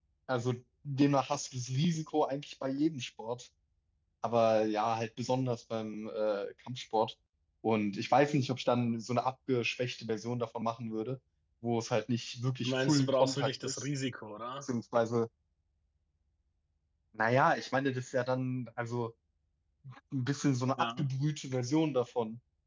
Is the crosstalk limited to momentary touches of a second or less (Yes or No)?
No